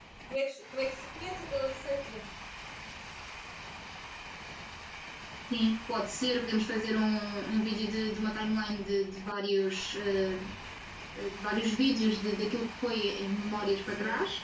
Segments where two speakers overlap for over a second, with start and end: none

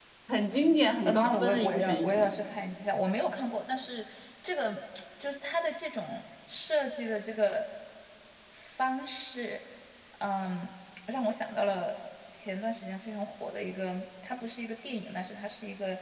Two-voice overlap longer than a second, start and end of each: 1.0-2.4

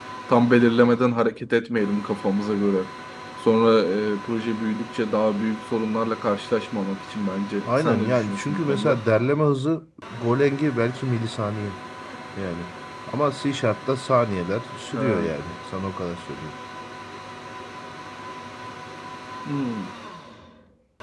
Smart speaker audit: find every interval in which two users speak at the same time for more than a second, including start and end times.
7.7-9.0

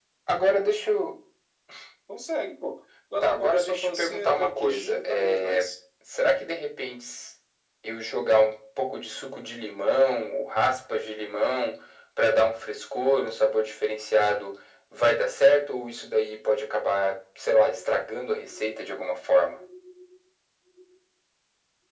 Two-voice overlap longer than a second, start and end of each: 3.2-5.7

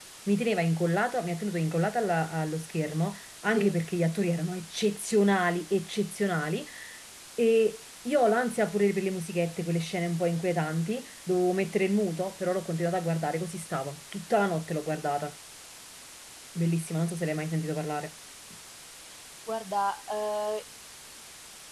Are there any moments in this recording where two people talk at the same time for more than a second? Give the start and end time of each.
none

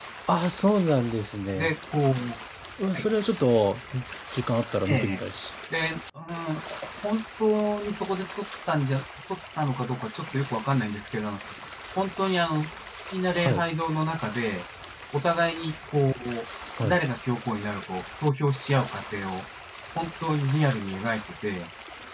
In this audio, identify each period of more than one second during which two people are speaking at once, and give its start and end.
none

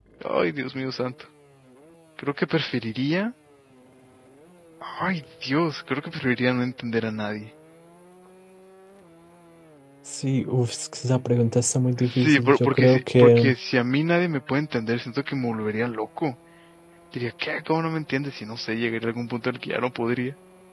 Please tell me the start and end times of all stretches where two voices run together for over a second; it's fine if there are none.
12.0-13.5

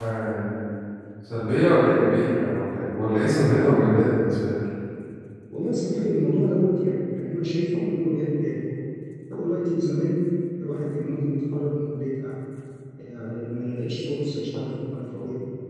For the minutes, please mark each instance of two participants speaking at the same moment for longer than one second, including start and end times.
none

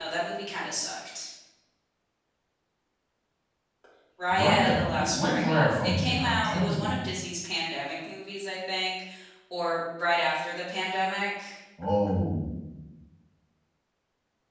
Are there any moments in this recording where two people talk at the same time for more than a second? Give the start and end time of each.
4.3-6.9

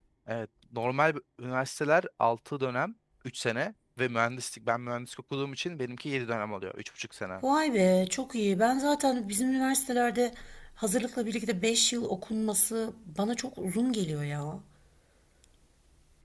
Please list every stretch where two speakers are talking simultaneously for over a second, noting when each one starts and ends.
none

